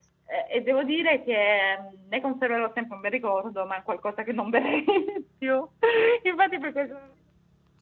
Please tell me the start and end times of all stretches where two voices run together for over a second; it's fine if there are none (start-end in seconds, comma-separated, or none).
none